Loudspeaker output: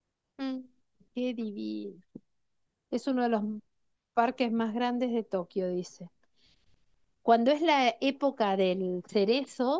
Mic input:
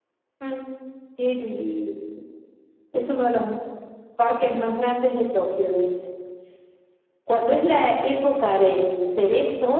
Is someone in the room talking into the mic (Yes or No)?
No